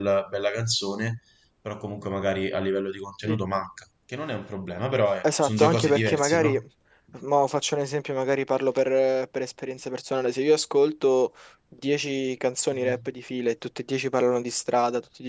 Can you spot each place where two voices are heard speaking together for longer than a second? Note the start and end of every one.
5.2-6.6

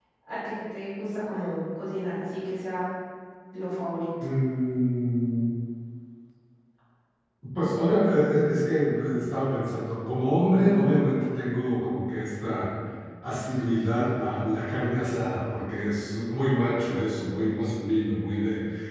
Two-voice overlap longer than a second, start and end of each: none

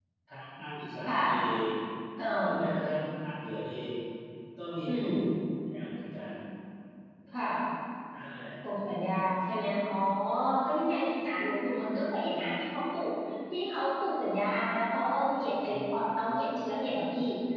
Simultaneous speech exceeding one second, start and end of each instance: none

